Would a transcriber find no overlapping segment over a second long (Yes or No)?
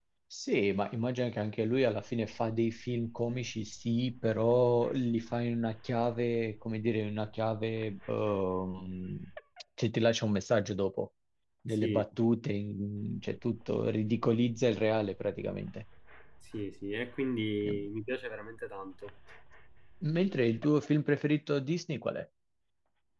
Yes